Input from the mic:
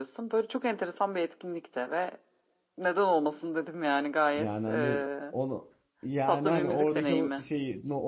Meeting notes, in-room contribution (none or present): present